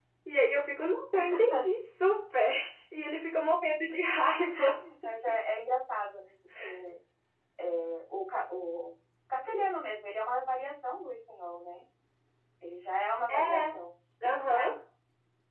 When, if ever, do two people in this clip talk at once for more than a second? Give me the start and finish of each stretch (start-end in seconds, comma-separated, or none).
none